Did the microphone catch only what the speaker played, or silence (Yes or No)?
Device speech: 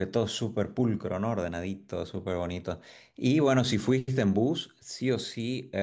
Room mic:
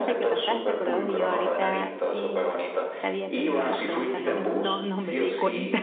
No